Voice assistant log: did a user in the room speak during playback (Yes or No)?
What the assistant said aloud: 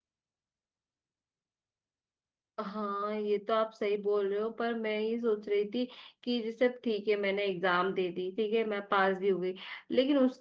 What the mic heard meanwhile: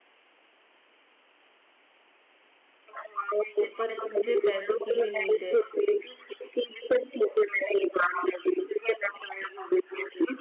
Yes